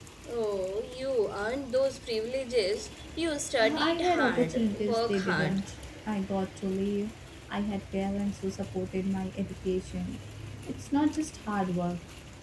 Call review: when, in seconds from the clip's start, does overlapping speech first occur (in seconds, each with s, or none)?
3.6 s